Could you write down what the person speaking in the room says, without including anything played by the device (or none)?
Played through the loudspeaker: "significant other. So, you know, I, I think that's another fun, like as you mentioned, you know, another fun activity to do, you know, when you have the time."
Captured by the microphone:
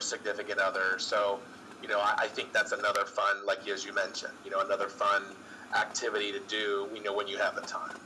none